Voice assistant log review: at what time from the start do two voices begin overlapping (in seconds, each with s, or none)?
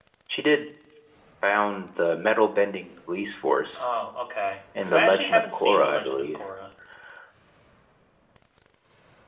4.8 s